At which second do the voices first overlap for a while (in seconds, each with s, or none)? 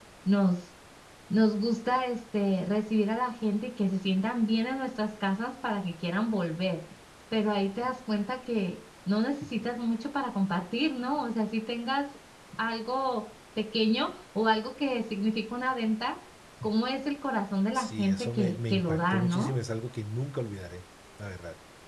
17.7 s